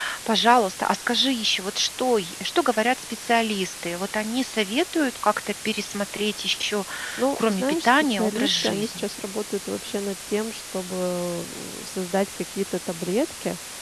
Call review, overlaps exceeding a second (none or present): present